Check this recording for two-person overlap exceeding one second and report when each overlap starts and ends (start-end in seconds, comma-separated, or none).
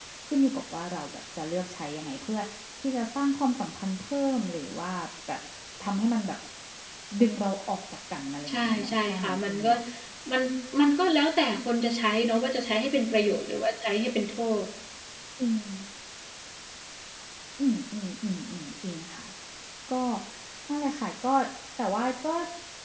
8.5-9.7